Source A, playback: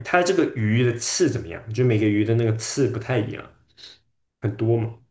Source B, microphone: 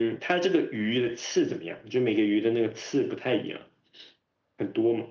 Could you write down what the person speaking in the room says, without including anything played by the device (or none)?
none